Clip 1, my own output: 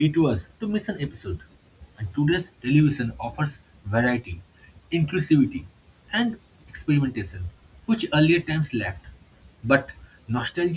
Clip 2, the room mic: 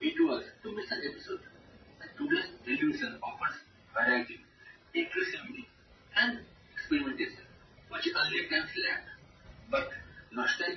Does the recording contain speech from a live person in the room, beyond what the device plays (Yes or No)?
No